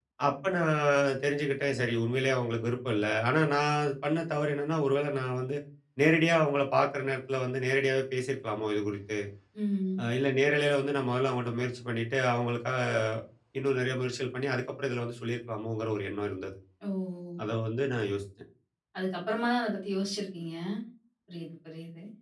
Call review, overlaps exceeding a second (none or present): none